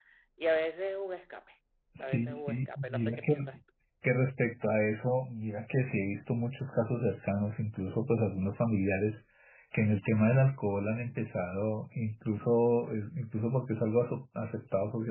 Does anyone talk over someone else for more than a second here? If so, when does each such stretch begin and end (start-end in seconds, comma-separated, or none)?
2.0-3.4